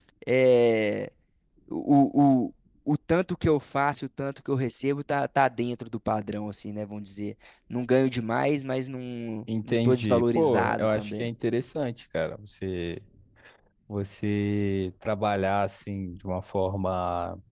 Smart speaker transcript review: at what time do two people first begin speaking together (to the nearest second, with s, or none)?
9 s